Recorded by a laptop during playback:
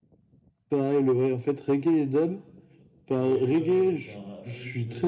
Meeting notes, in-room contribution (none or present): present